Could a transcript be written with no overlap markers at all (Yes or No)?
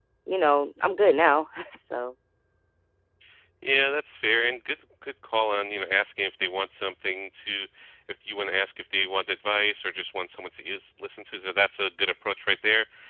Yes